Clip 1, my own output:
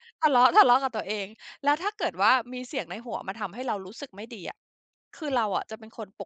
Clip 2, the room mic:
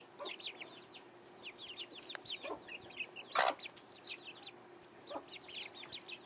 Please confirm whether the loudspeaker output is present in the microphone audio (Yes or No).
No